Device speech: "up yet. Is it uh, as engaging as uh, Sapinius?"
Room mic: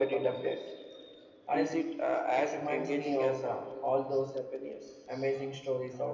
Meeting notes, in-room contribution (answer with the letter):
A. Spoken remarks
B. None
A